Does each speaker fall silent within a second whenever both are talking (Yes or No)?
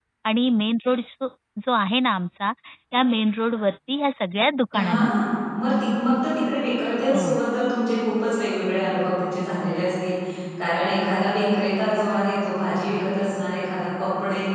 Yes